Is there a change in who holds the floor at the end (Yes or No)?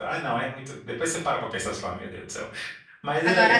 Yes